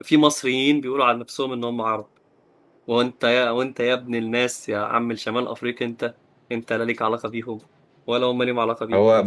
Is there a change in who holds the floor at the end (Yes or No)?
Yes